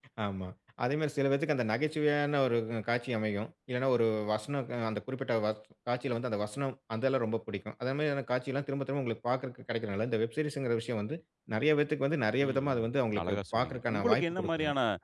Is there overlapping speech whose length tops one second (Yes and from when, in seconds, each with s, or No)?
Yes, from 12.4 s